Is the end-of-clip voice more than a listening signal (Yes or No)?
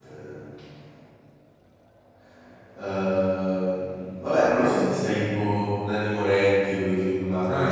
Yes